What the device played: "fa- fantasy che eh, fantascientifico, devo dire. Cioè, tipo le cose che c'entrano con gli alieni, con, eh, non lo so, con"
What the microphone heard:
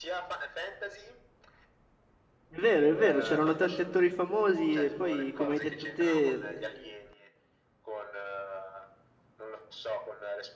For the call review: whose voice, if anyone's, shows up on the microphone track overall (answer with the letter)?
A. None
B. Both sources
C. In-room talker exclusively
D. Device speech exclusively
B